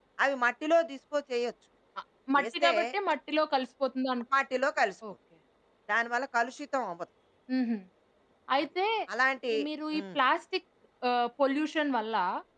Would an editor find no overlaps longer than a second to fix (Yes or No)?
Yes